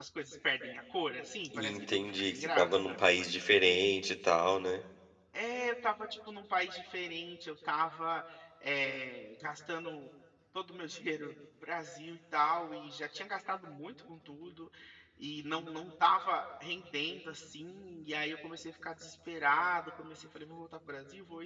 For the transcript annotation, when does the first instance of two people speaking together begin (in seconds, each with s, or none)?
1.5 s